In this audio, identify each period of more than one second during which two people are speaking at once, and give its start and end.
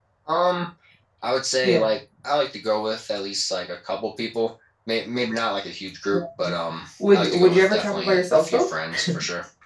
7.1-8.7

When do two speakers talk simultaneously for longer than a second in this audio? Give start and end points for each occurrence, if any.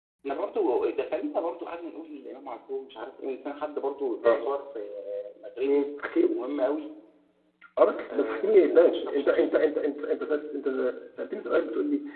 8.1-9.6

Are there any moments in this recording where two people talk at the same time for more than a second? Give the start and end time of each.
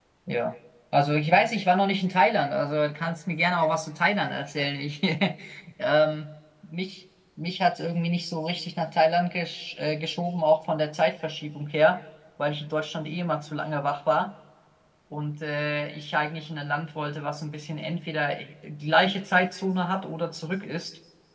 none

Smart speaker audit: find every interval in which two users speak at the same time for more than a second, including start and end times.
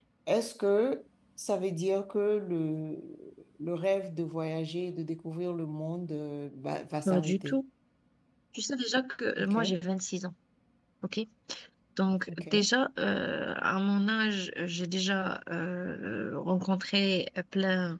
none

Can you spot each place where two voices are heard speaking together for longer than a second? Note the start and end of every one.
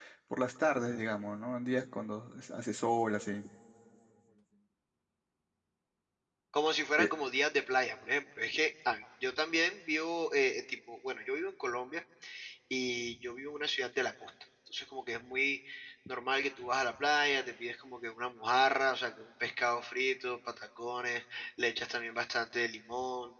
none

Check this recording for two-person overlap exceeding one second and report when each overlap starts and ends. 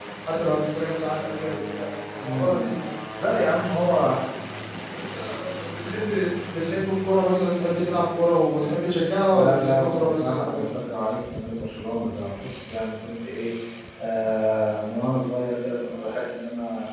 9.3-10.7

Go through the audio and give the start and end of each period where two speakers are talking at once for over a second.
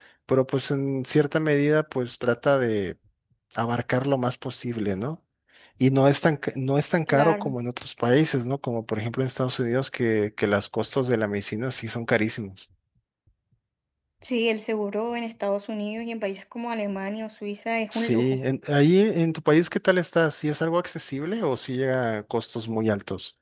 none

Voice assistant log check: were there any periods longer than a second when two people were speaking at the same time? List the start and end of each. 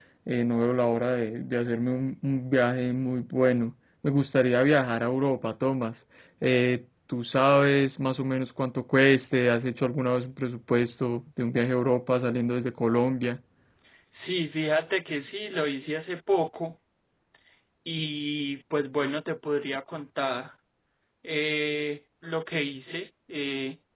none

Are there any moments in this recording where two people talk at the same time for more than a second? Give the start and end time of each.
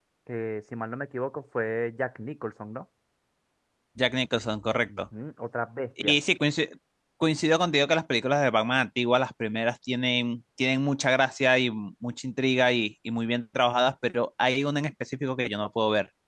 none

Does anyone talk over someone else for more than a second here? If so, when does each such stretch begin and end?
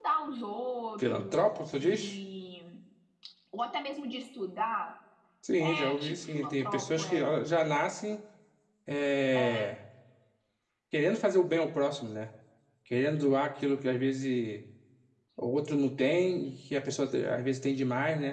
5.6-7.3

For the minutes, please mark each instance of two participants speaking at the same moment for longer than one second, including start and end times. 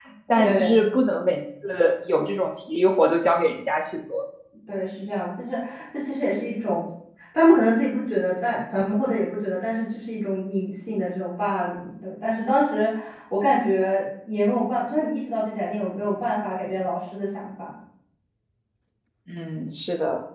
none

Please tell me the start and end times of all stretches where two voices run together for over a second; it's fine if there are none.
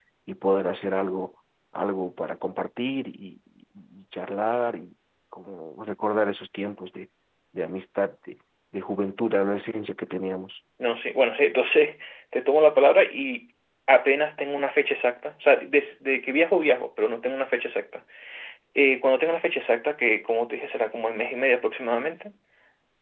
none

